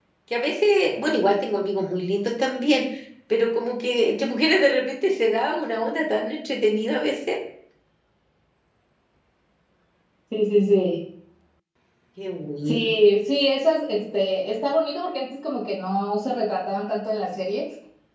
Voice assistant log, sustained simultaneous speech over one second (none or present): none